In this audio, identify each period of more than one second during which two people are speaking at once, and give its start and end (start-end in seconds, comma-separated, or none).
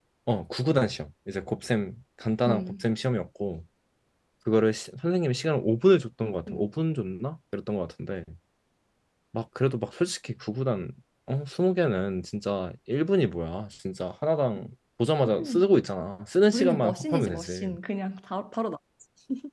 16.5-17.8